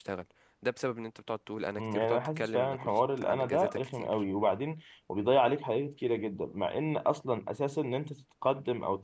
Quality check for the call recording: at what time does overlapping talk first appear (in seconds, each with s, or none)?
1.8 s